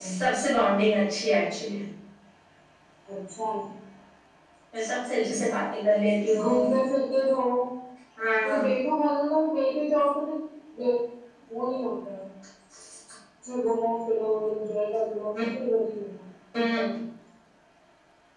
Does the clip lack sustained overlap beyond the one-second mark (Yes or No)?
Yes